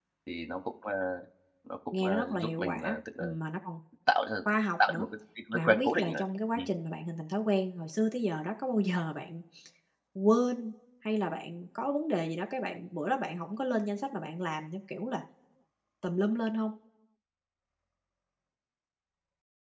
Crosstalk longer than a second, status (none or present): present